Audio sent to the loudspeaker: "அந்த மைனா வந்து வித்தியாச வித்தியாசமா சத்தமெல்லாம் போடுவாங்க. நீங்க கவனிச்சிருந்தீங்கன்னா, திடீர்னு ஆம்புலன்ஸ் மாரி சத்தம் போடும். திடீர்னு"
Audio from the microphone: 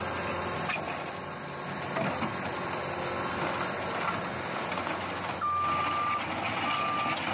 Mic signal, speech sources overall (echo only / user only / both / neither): neither